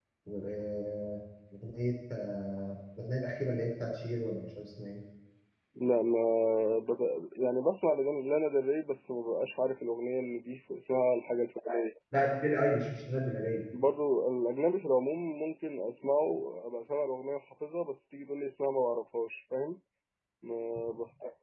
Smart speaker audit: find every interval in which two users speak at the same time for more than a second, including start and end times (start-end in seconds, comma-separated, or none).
none